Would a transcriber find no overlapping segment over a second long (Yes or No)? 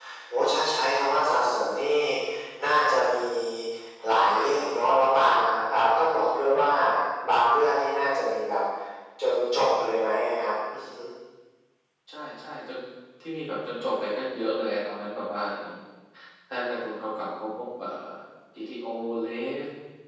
Yes